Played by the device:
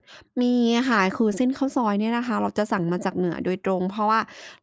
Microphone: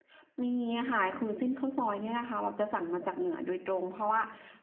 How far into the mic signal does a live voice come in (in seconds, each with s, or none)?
none